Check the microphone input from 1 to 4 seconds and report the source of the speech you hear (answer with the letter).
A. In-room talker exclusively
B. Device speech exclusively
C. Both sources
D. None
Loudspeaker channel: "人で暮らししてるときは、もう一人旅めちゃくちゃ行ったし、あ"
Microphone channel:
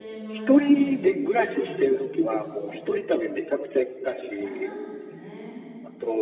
C